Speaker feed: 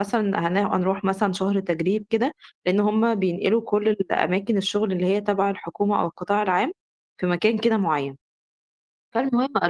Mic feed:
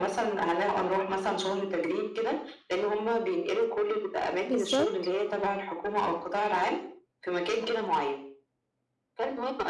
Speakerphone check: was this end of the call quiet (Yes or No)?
No